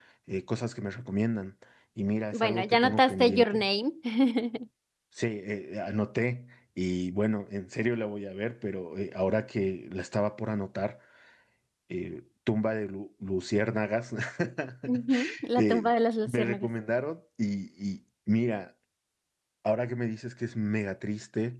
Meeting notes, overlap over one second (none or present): present